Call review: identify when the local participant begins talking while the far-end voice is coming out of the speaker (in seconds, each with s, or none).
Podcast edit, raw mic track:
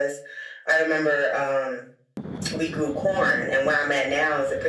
none